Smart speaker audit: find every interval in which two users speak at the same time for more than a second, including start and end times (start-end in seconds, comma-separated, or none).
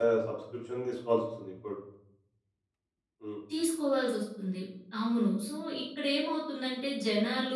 none